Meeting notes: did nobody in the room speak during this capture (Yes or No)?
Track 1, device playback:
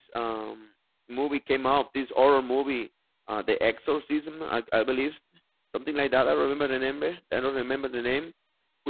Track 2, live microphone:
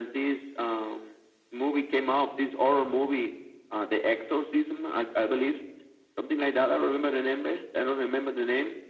Yes